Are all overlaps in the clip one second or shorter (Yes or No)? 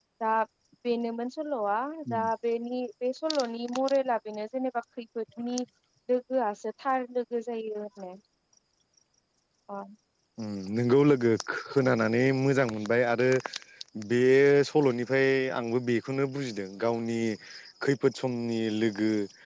Yes